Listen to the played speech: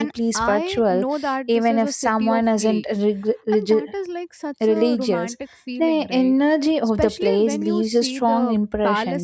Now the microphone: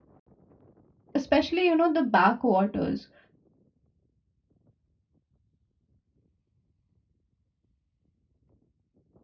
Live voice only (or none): especially, you know, the backwaters.